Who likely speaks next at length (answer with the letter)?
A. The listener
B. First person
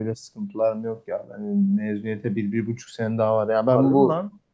A